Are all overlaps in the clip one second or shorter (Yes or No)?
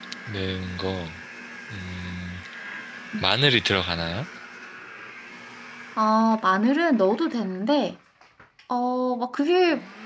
Yes